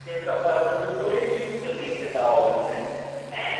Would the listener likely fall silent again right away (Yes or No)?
No